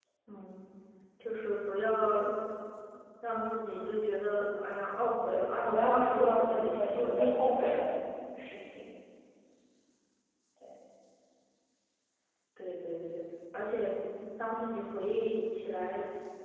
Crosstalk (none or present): present